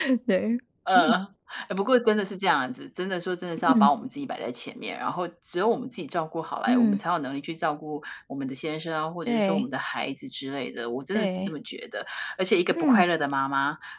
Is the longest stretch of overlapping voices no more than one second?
Yes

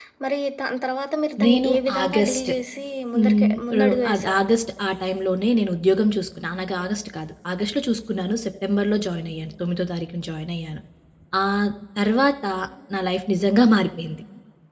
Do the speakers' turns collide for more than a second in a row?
Yes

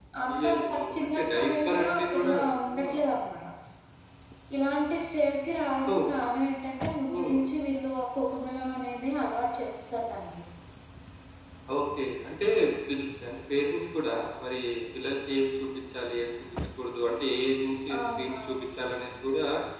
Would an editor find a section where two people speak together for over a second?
Yes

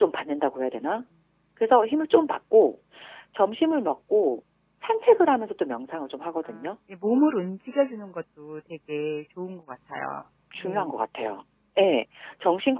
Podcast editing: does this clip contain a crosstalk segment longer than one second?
No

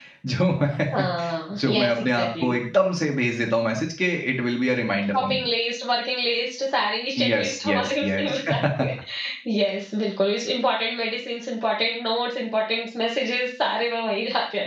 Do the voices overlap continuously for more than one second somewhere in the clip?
Yes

